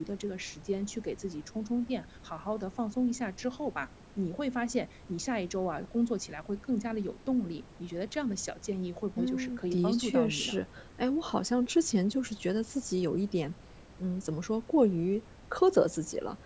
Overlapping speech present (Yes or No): Yes